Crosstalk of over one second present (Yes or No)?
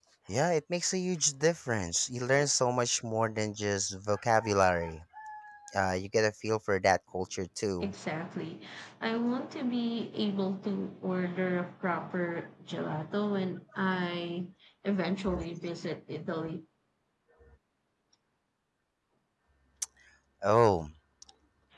No